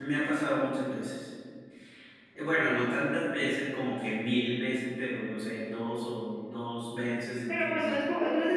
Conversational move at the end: taking over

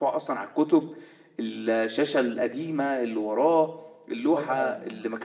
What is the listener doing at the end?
taking over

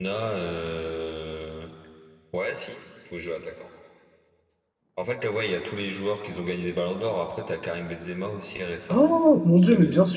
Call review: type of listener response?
taking over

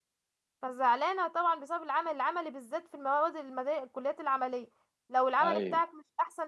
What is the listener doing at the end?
listening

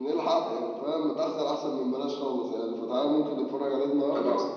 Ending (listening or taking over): listening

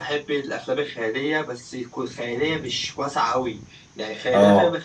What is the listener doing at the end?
listening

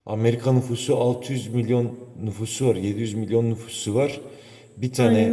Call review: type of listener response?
listening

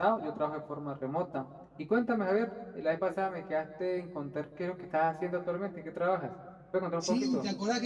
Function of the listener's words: taking over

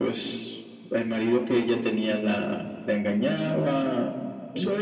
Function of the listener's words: taking over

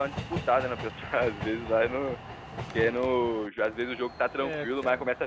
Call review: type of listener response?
listening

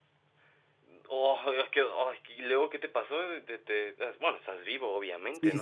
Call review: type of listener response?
taking over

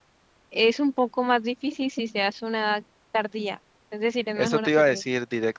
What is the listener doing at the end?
taking over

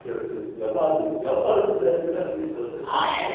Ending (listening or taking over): taking over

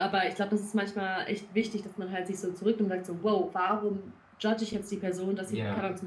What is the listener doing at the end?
listening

